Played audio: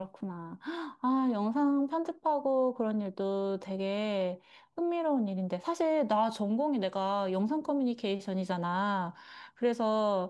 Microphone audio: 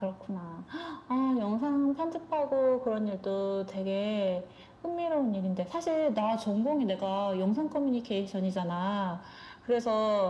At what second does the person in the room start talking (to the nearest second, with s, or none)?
none